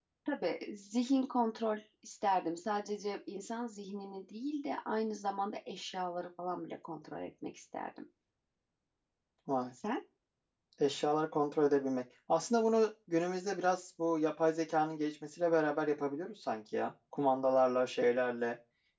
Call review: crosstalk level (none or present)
none